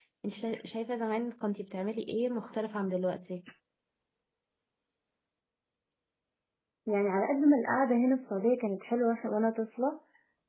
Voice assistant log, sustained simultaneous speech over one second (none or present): none